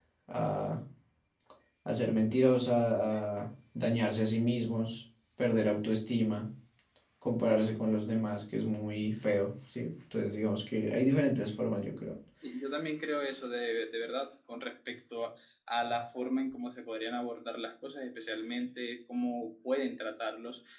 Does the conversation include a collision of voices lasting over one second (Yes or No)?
No